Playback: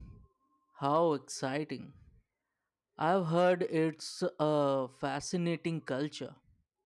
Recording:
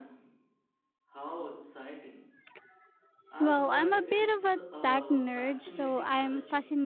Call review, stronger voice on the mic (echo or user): user